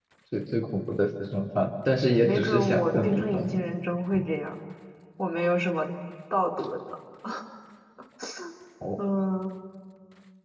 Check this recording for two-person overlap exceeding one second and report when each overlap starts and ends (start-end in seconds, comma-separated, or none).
2.2-3.6